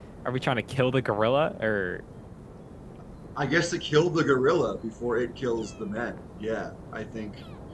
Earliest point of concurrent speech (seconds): none

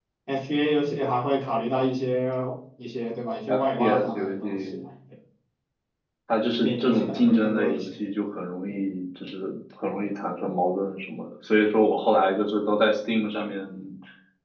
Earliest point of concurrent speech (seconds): 3 s

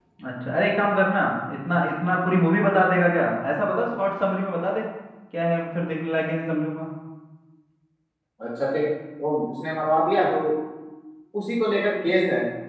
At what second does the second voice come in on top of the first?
none

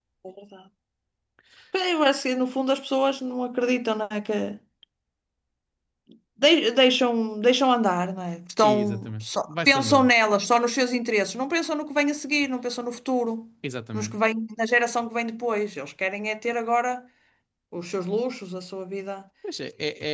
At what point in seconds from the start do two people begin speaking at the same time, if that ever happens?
9 s

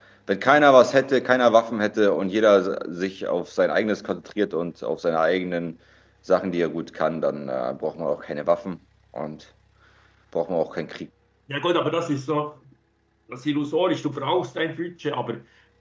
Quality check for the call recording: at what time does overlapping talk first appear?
none

